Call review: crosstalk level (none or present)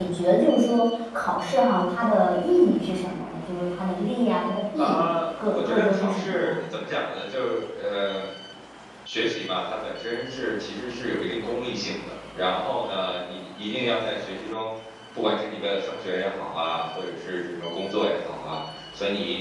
present